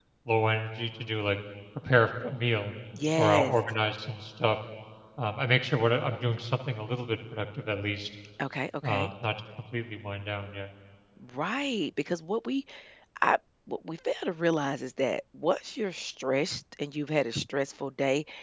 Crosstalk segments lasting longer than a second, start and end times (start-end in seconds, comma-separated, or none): none